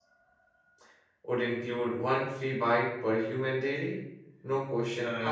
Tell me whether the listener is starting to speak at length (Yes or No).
Yes